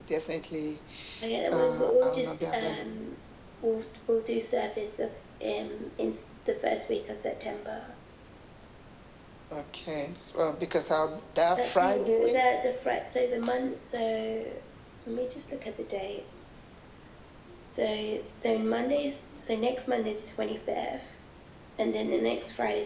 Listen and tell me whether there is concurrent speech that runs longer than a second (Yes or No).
Yes